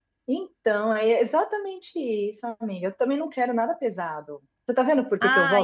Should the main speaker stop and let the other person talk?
Yes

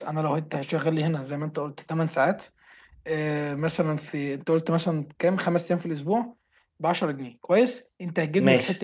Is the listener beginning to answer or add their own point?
No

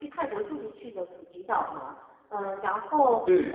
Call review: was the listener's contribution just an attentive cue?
Yes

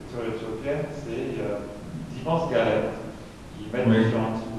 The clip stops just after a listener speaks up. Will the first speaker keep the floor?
Yes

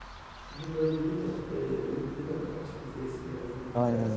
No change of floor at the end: No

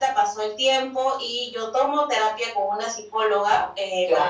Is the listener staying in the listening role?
Yes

